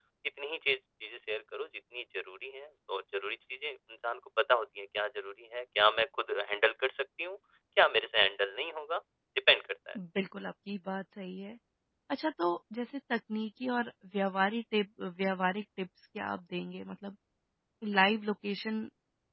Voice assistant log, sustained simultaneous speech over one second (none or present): none